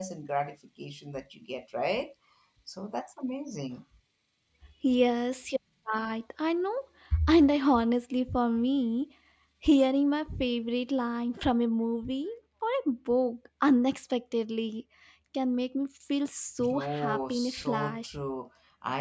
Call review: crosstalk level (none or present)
present